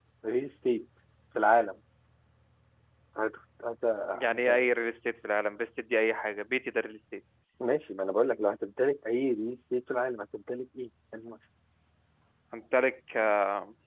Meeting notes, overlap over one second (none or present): none